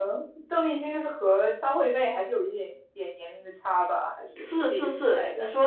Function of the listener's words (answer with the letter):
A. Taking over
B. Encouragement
A